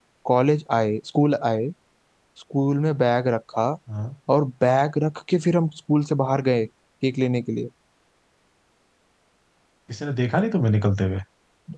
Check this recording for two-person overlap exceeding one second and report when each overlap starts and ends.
none

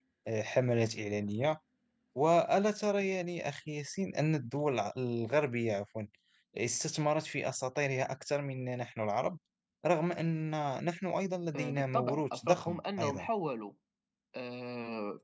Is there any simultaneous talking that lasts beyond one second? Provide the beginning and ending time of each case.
11.6-13.3

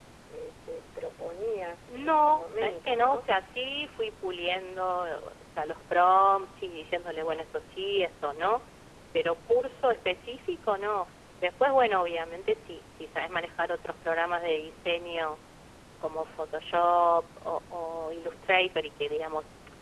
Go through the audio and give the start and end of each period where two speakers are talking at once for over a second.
1.9-3.2

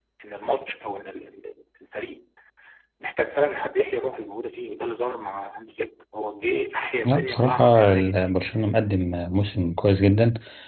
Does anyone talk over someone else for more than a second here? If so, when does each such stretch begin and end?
7.0-8.3

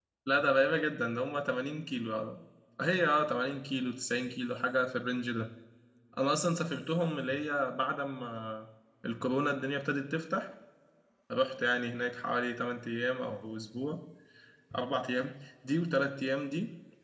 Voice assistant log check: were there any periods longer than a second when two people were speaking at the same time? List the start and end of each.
none

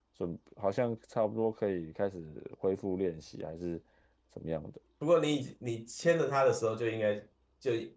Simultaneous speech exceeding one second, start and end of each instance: none

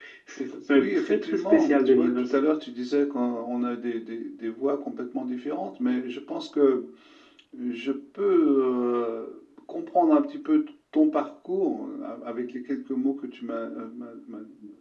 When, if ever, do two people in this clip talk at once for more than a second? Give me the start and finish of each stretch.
0.7-2.4

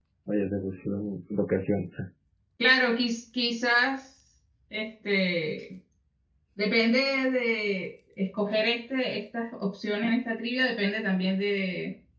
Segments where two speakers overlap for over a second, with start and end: none

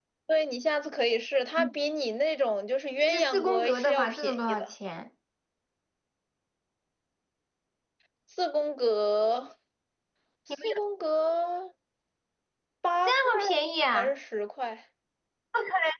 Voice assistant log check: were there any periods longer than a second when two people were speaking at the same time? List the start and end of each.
3.0-4.7

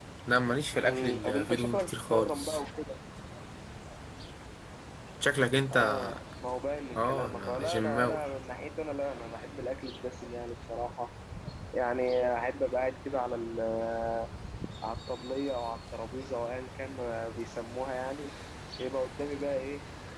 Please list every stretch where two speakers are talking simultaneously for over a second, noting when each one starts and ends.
0.8-2.6, 7.0-8.2

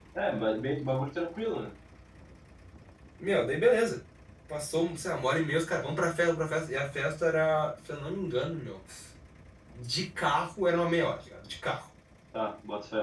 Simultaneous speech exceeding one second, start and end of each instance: none

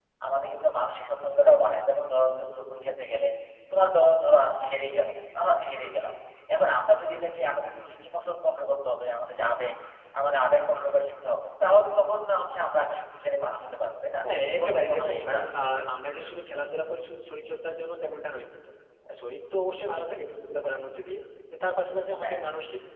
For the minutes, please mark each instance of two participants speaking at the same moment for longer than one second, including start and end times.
14.6-15.8

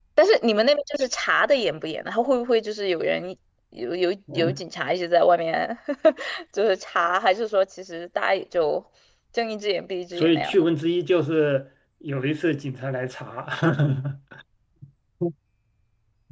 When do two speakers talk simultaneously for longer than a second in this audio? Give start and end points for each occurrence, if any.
none

